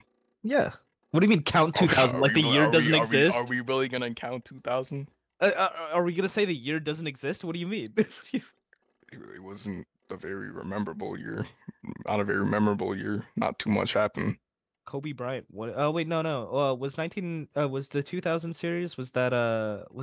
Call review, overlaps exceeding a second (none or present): present